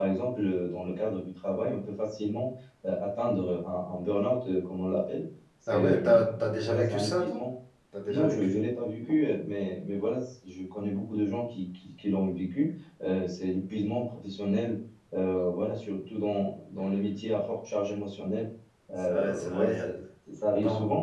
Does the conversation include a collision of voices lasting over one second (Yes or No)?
Yes